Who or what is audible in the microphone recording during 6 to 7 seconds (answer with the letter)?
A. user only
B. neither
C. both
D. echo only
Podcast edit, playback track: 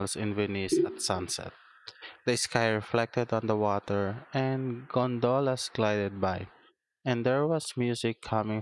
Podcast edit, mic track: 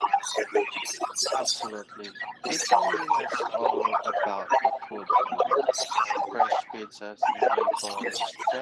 C